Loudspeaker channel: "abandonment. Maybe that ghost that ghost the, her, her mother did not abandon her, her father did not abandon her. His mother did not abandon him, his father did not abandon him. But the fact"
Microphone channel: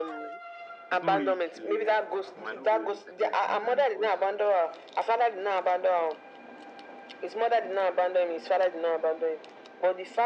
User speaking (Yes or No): Yes